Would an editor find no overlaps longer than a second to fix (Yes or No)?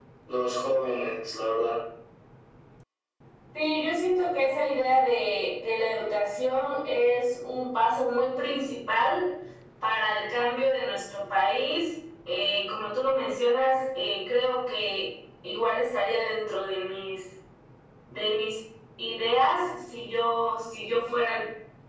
Yes